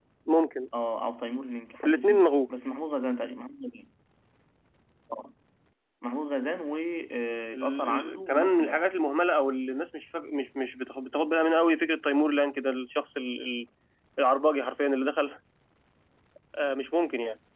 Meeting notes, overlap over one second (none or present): present